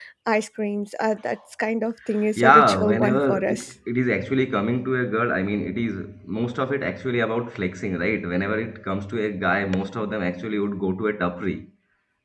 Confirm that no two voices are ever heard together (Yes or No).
No